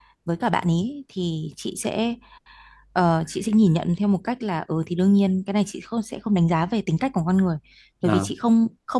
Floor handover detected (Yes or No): No